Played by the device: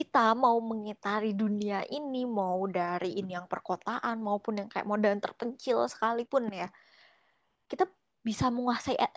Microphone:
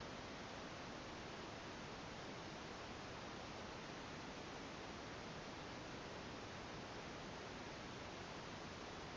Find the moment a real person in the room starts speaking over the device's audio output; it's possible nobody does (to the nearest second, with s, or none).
none